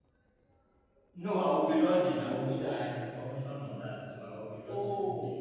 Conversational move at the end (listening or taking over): taking over